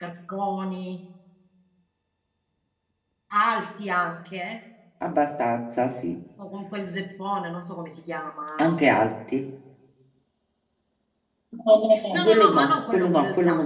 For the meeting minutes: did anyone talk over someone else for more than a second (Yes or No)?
Yes